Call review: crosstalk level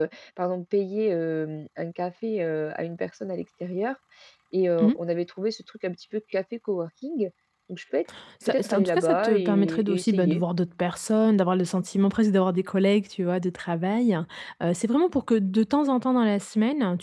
present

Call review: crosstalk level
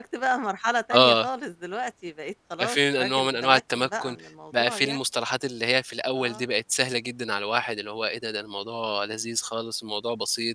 present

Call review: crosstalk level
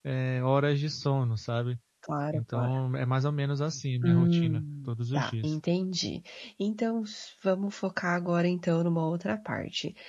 present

